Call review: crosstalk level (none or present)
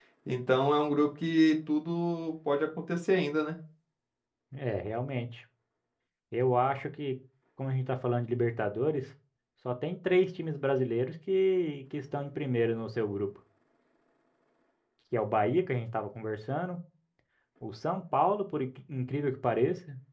none